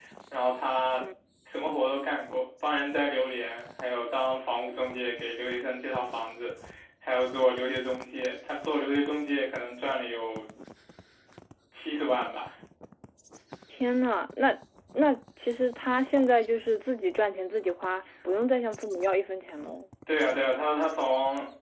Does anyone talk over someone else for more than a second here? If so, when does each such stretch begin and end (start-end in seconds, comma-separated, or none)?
none